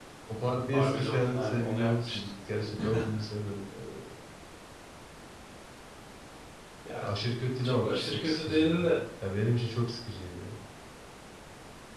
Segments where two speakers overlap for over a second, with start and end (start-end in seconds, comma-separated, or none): 0.7-2.2, 7.6-8.9